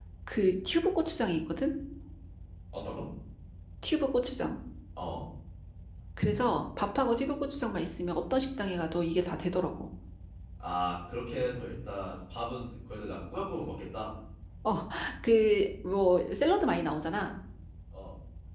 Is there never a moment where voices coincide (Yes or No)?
Yes